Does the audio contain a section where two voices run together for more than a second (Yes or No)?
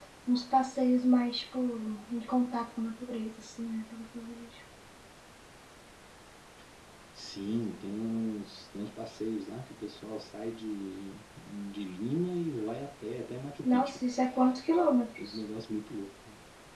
No